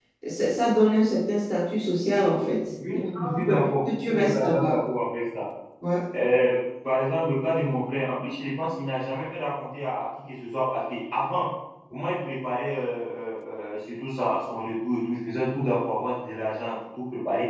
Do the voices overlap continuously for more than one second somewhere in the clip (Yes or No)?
Yes